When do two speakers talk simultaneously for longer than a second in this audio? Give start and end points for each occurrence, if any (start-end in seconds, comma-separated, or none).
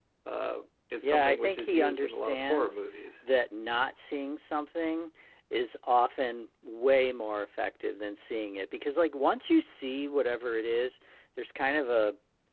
1.0-2.8